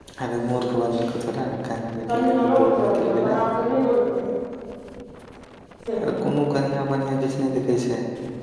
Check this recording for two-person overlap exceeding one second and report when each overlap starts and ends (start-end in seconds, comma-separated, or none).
2.1-3.3